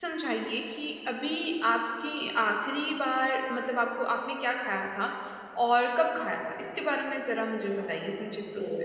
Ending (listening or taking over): taking over